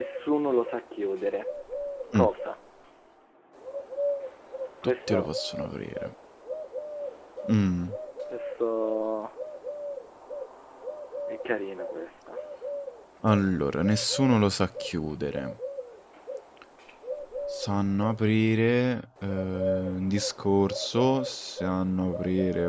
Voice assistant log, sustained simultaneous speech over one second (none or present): none